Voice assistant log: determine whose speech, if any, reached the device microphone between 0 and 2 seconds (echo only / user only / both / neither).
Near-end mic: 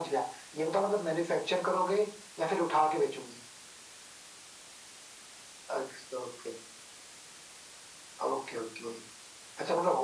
echo only